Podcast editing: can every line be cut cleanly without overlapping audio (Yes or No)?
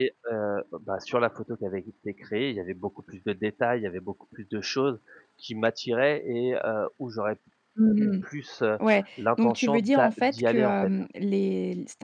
No